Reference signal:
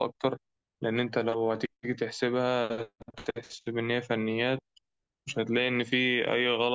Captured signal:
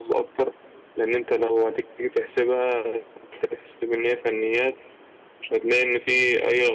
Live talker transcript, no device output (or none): none